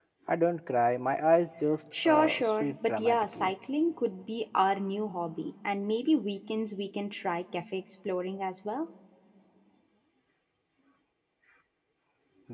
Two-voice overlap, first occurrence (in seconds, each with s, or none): 1.9 s